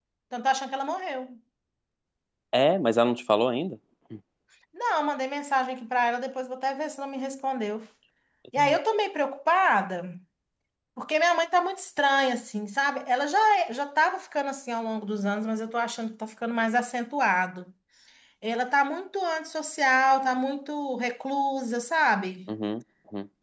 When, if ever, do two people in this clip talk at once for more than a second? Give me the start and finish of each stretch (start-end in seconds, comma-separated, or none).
none